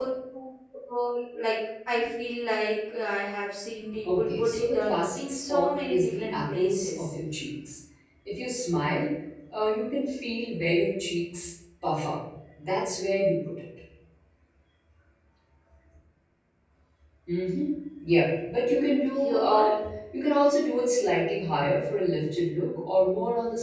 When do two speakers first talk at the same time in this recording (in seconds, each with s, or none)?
4.2 s